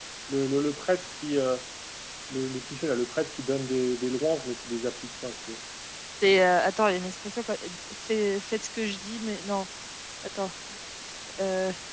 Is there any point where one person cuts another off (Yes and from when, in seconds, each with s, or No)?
No